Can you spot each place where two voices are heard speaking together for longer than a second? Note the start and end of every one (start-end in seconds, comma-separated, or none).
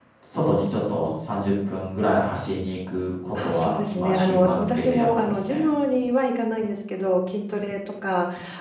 3.3-5.7